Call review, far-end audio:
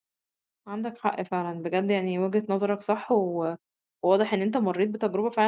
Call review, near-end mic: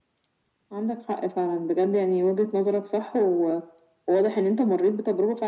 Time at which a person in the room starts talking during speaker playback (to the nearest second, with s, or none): none